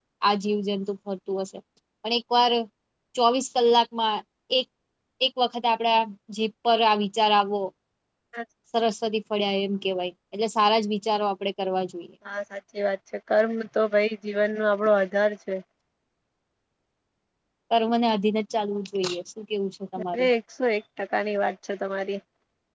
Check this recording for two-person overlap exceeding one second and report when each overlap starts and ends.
none

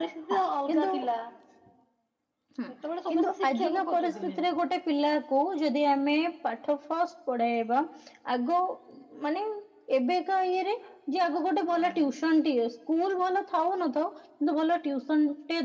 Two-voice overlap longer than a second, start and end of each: 3.1-4.4

